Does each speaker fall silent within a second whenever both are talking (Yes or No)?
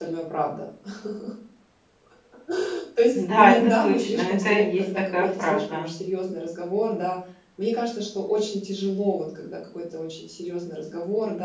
No